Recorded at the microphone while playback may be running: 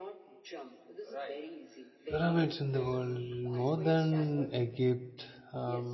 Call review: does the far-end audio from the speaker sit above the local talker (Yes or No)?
No